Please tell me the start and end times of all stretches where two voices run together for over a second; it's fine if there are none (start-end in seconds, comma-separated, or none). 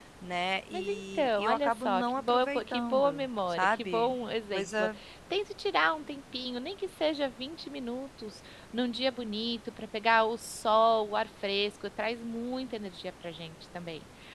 0.7-4.2